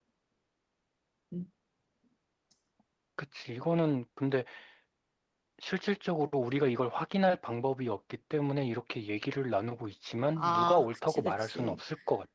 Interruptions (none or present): present